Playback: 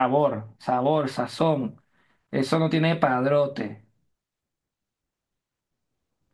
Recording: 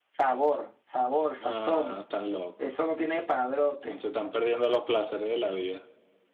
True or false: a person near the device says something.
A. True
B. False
A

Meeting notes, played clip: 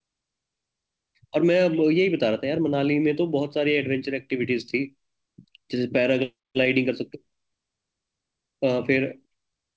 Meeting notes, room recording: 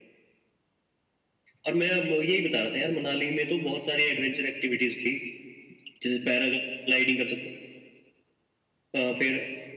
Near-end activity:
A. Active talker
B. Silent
B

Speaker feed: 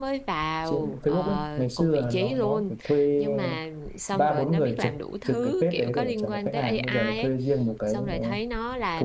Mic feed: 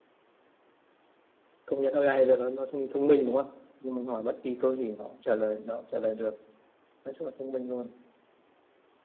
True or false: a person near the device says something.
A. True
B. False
A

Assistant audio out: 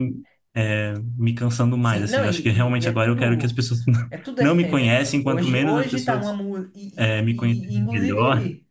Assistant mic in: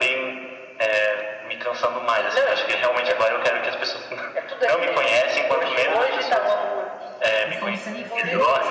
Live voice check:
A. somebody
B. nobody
A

